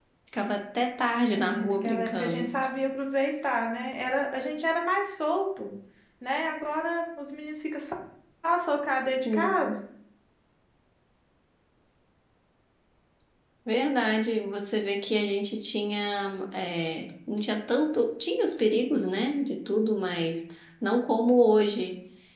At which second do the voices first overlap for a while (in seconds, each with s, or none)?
1.3 s